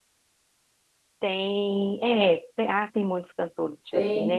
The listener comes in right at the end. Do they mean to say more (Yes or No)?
No